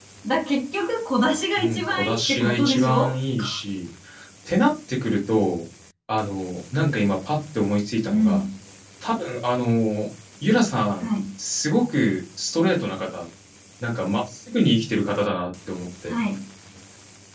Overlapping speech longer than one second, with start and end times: 1.6-3.2

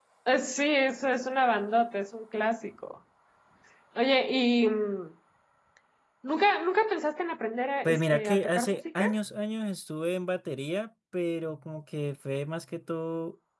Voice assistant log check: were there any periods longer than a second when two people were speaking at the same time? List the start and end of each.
7.8-9.1

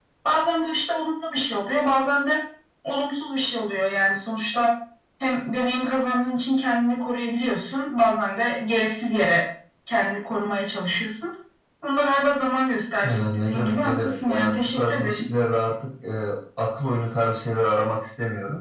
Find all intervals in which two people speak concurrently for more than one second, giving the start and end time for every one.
13.0-15.2

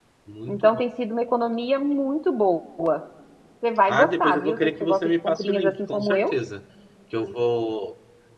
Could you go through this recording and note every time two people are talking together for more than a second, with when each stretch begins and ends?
3.9-6.3

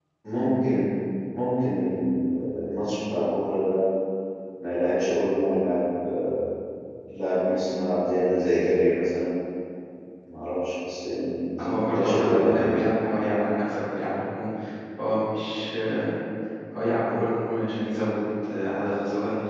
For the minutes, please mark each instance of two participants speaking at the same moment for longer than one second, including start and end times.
11.6-12.8

